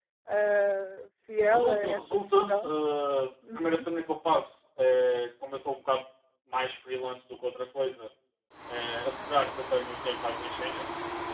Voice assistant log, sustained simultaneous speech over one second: present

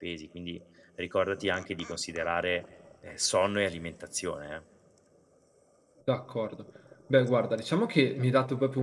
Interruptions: none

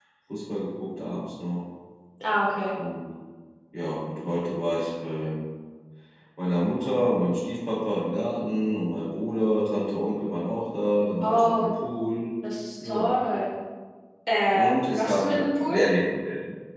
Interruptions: present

